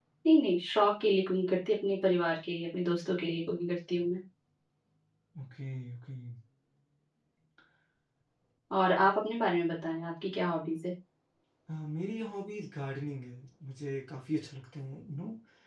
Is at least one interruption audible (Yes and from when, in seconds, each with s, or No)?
No